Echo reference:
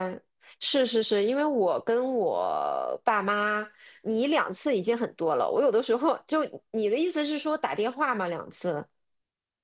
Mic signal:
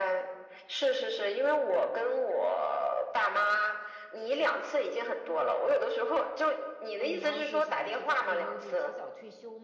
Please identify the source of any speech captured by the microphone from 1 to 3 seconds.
echo only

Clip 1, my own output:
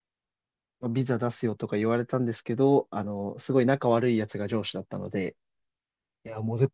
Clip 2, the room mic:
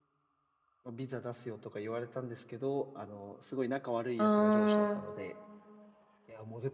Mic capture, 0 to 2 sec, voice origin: echo only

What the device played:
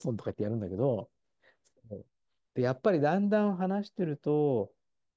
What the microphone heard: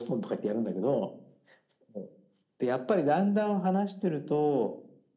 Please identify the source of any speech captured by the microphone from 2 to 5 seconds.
echo only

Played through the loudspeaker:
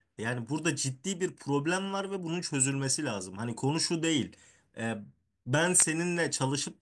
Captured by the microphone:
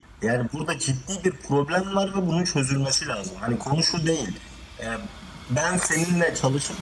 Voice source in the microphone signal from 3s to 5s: echo only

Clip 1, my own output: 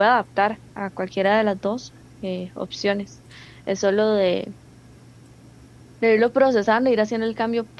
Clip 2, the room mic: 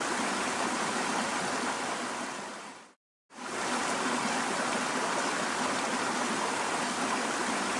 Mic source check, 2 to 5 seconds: neither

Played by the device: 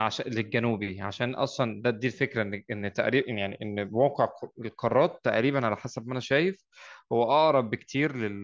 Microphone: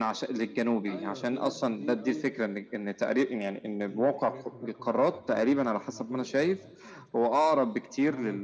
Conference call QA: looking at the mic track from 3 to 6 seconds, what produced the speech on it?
both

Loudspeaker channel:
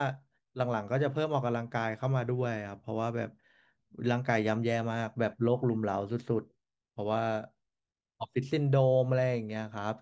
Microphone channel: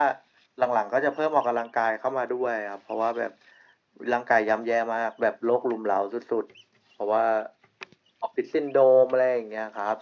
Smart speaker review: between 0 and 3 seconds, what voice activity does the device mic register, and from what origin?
echo only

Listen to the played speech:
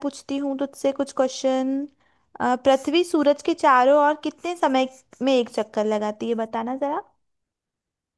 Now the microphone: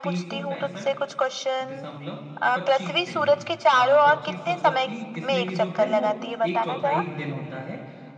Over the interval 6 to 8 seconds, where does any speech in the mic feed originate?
both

